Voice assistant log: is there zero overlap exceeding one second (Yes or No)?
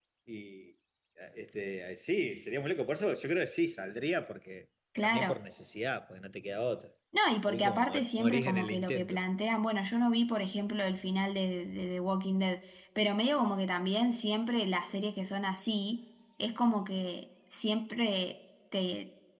No